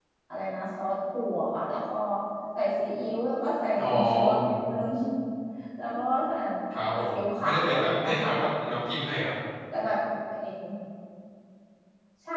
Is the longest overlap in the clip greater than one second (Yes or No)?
Yes